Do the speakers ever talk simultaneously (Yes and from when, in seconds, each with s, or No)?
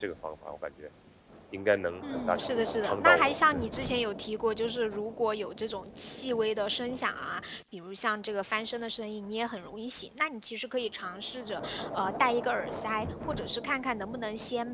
Yes, from 2.0 s